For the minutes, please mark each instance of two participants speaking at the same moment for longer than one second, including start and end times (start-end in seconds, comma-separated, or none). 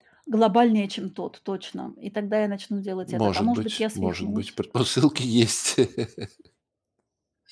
3.0-4.5